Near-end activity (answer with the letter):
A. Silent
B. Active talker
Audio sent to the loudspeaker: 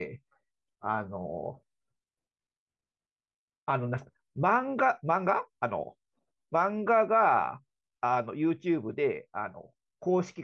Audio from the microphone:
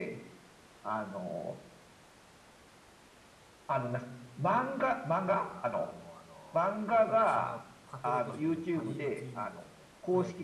B